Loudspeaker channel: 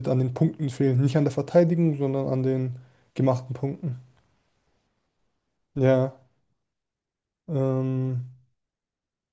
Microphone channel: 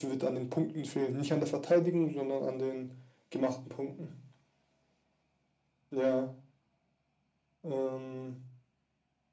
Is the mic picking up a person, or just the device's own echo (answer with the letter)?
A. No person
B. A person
A